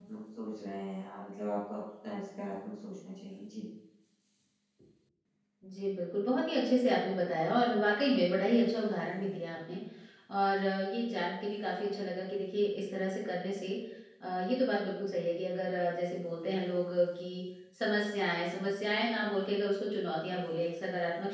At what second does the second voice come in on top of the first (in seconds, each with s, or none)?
none